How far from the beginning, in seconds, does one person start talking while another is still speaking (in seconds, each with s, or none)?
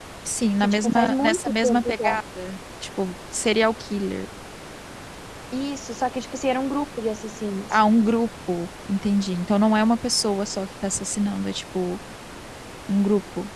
0.6 s